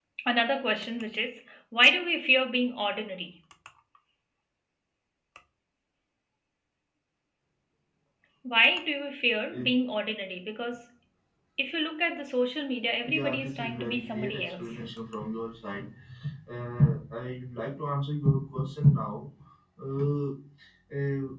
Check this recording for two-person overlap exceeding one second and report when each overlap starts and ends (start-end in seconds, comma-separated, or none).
13.0-14.6